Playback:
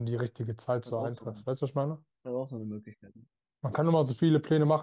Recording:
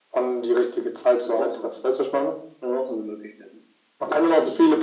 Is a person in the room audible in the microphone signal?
No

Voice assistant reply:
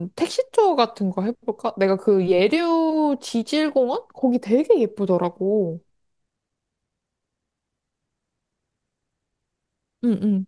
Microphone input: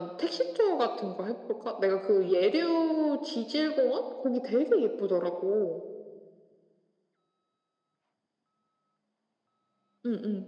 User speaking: No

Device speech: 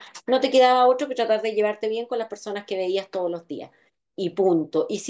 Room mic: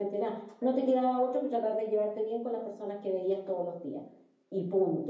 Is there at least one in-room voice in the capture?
No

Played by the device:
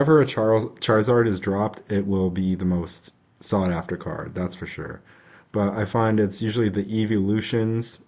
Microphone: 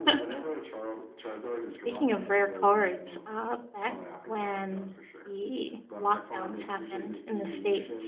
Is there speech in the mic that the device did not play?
Yes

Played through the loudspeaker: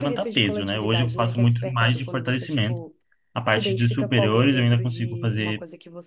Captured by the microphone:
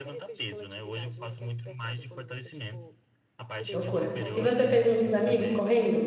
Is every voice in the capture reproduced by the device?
No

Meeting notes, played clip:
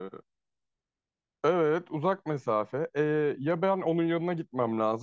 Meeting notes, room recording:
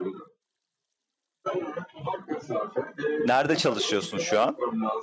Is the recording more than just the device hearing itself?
Yes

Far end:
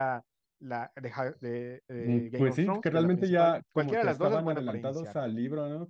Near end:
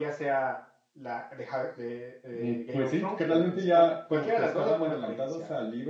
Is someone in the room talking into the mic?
No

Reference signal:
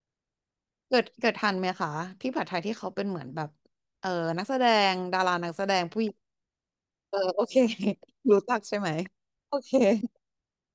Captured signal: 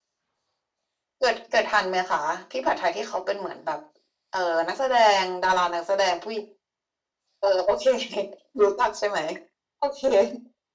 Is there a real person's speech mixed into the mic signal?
No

